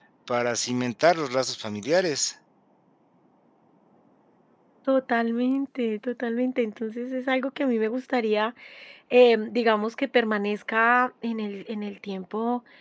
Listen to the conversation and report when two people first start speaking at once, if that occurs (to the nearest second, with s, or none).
none